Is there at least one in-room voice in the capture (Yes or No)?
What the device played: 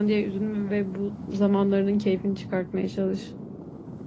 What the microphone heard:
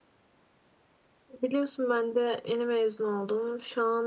Yes